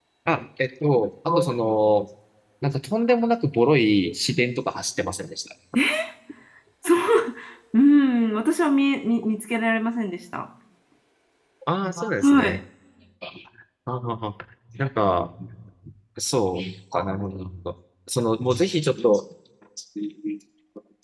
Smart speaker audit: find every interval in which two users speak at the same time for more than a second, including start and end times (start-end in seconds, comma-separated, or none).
none